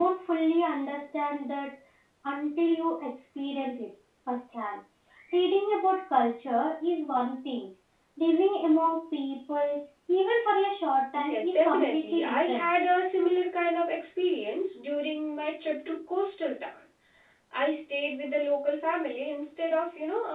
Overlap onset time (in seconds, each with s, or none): 11.3 s